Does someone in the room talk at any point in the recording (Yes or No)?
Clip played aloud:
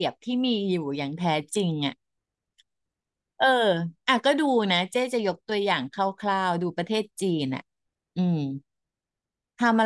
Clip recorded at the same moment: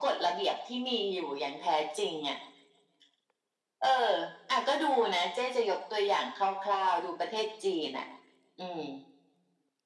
No